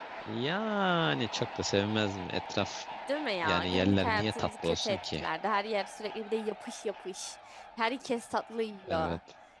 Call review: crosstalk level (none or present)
present